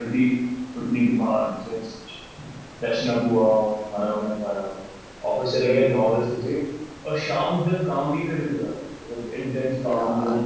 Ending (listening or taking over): taking over